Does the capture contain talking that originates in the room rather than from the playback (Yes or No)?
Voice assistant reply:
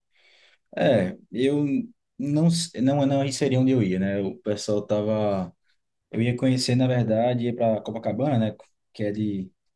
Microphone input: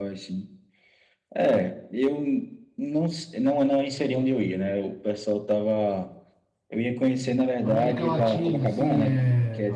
Yes